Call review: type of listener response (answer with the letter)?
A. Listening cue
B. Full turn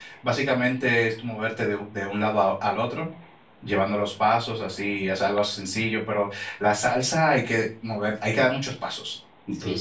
B